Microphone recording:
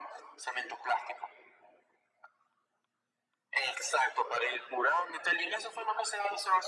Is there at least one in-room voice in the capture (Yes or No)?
No